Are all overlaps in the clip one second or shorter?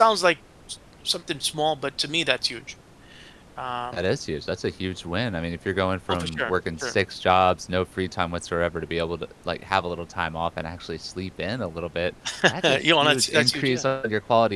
No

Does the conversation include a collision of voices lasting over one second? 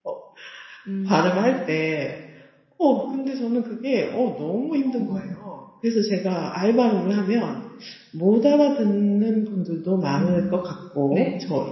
No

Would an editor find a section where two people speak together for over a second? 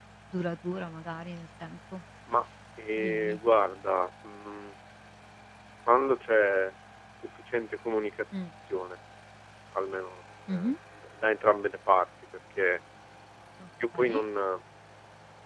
No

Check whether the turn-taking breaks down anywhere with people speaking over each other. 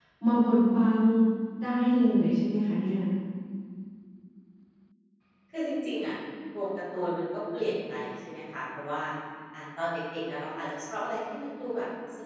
No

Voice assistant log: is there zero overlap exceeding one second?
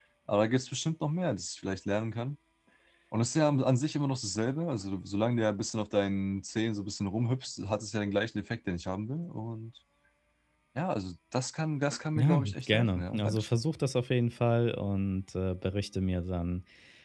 No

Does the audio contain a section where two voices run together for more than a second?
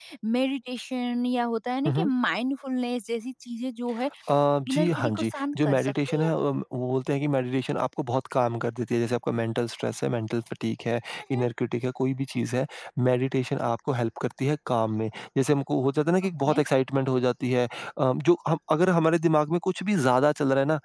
Yes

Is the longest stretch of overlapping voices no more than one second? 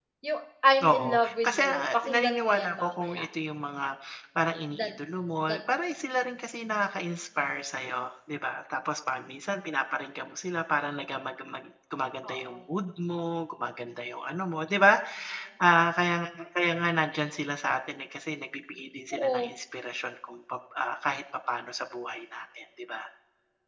No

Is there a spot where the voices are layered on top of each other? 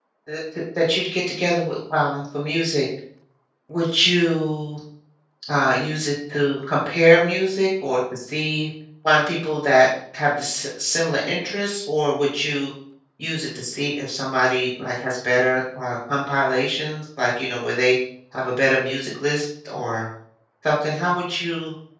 No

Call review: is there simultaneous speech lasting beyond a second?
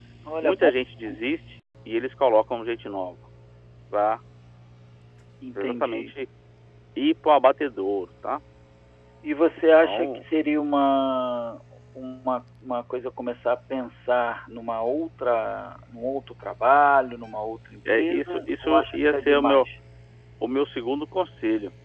Yes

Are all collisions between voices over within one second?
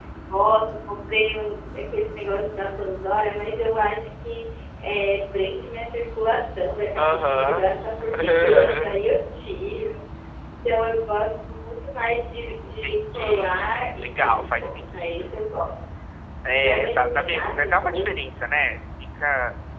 No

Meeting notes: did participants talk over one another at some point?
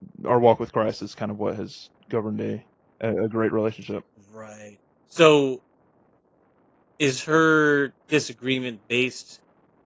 No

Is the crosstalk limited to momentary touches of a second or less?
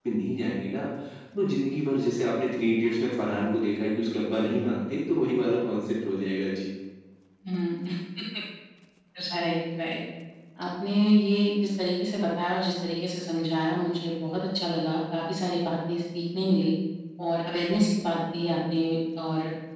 Yes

